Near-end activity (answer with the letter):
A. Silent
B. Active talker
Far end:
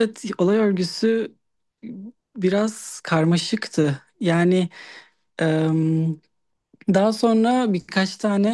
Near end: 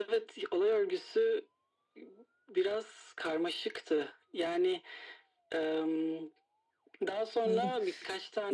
B